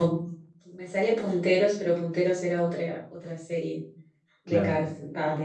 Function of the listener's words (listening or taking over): listening